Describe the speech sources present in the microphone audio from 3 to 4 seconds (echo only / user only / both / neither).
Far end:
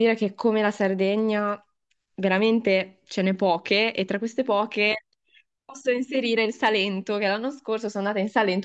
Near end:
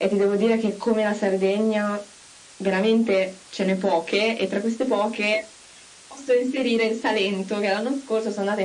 echo only